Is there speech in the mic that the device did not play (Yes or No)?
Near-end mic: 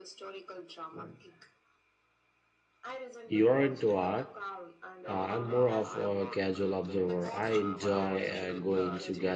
Yes